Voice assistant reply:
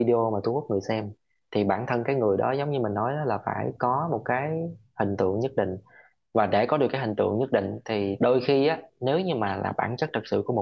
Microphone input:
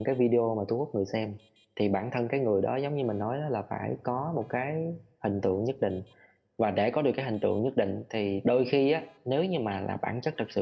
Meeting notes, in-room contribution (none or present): none